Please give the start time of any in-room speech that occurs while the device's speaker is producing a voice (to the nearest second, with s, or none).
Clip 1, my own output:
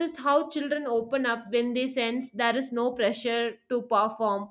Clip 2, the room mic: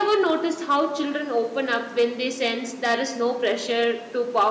none